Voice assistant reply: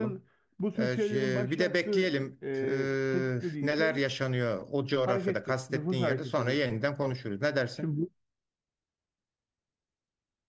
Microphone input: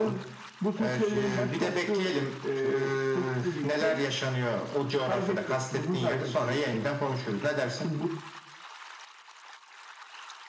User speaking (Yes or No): No